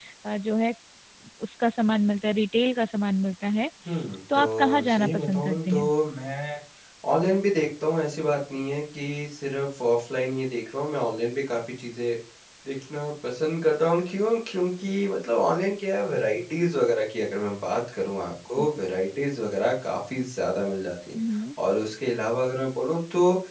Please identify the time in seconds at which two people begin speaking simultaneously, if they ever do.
4.3 s

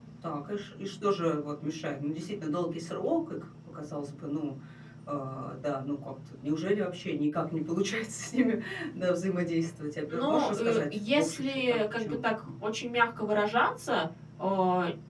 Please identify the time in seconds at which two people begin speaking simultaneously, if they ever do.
10.1 s

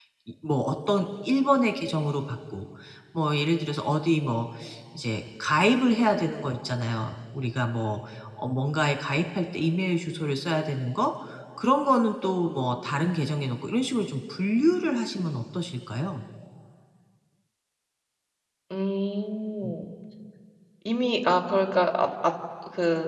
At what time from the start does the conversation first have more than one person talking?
none

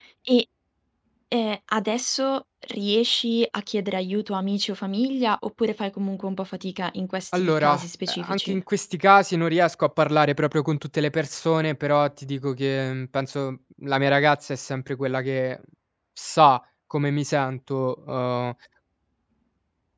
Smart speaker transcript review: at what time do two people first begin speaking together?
7.3 s

